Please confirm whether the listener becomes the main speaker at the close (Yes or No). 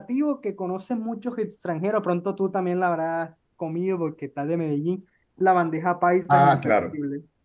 Yes